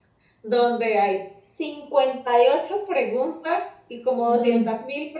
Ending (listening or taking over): listening